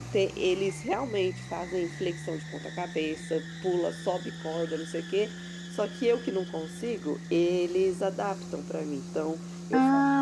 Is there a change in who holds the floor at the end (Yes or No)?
No